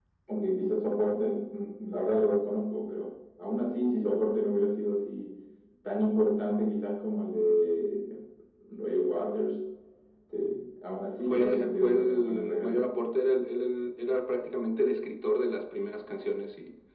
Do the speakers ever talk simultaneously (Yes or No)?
Yes